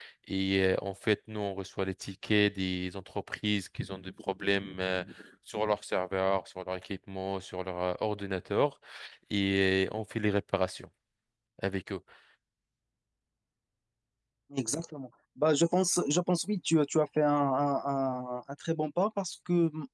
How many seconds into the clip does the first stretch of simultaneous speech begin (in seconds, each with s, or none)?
none